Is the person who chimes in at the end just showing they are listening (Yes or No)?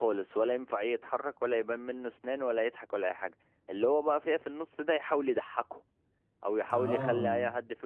Yes